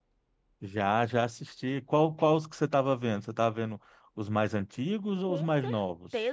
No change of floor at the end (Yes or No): No